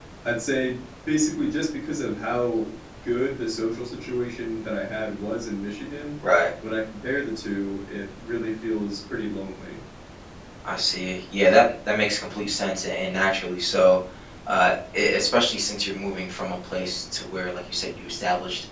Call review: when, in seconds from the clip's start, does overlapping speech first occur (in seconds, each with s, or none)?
none